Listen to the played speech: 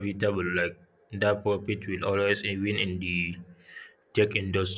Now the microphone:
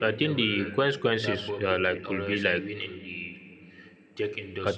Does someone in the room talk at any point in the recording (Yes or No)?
Yes